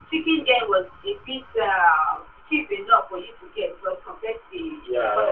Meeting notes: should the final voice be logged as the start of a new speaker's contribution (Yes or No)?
No